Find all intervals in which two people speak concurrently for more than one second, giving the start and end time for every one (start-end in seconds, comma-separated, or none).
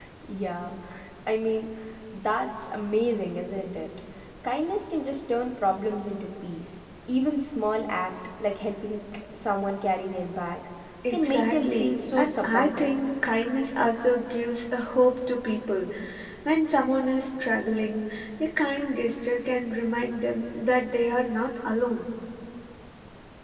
11.1-12.9